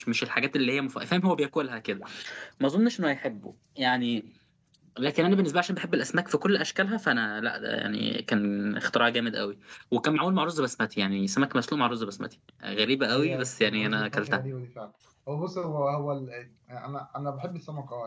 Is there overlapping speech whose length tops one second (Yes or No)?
Yes